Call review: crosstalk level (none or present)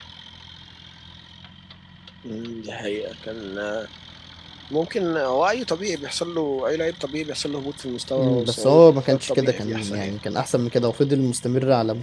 present